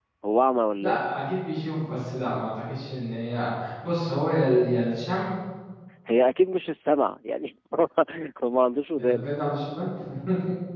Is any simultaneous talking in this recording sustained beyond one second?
No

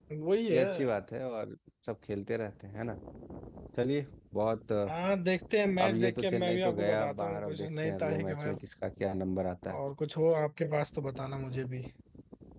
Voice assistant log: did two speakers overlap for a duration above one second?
Yes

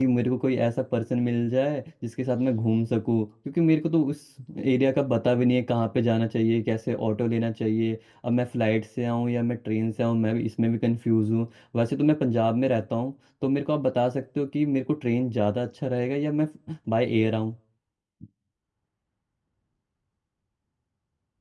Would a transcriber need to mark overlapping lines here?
No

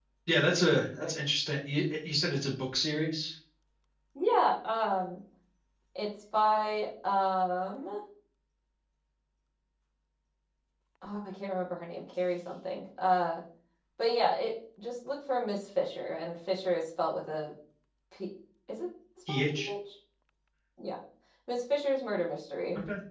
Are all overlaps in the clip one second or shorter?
Yes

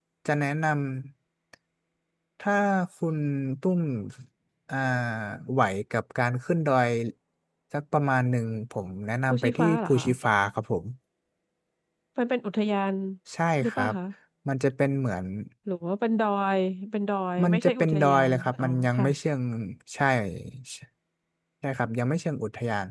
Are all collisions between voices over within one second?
No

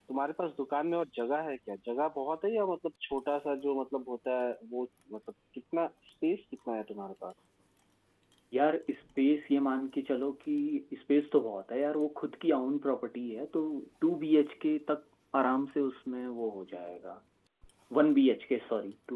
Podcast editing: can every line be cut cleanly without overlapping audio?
Yes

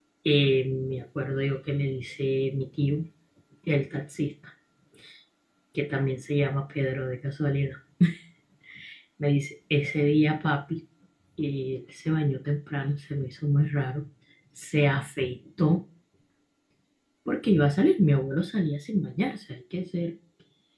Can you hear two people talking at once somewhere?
No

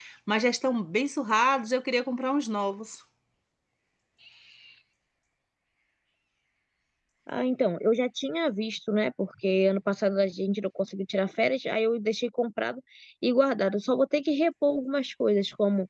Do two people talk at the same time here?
No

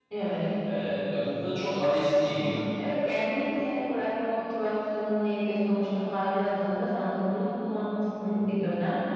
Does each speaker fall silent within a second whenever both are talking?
Yes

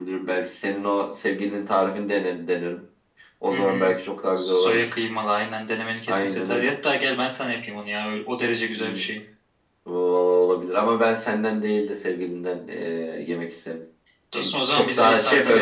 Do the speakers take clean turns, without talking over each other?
No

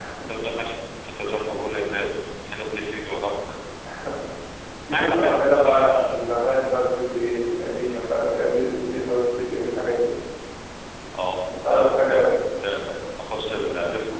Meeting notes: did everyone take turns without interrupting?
No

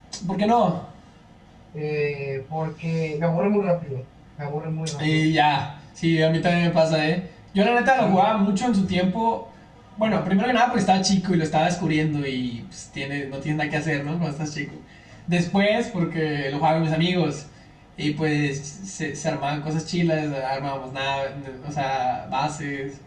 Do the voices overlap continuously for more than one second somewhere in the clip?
No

